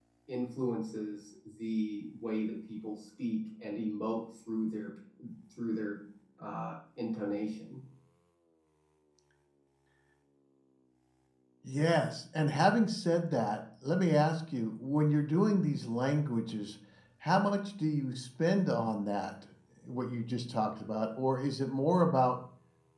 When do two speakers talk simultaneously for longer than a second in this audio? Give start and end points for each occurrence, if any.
none

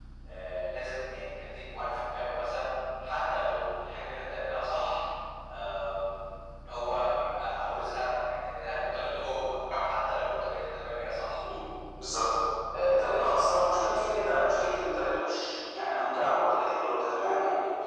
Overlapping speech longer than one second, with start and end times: none

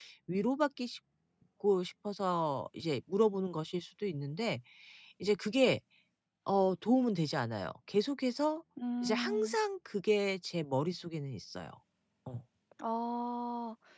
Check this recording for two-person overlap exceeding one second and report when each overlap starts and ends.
none

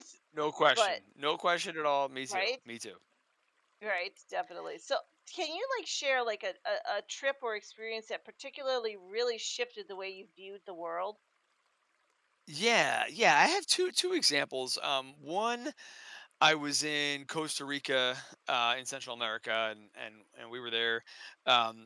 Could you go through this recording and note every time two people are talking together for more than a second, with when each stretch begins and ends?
none

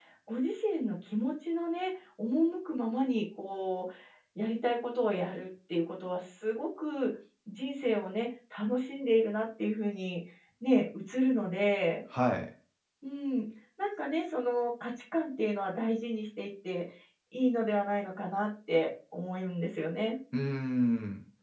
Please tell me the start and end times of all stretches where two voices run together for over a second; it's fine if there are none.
none

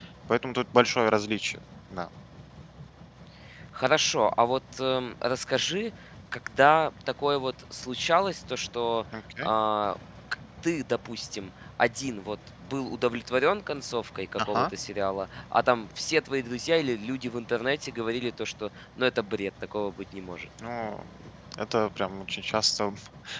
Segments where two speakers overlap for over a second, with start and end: none

